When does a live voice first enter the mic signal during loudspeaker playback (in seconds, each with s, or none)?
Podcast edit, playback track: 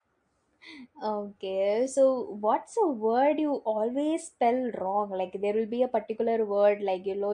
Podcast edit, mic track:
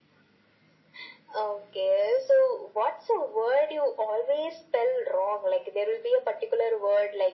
none